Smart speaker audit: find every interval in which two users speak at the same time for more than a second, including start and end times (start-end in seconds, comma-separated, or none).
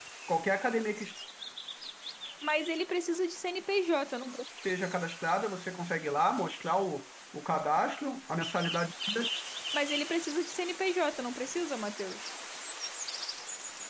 none